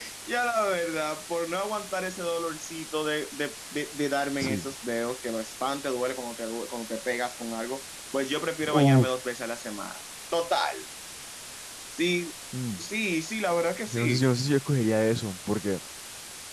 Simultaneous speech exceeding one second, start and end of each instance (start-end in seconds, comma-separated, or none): none